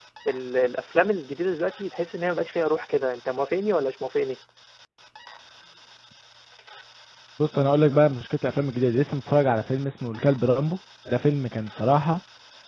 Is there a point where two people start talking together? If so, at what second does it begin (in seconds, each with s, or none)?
none